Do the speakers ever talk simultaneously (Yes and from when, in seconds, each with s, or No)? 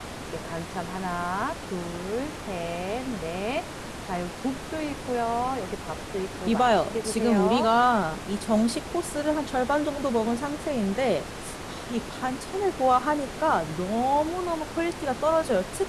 Yes, from 6.5 s